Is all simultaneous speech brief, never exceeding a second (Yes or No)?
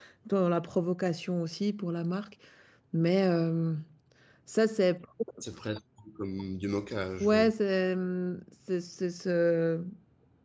Yes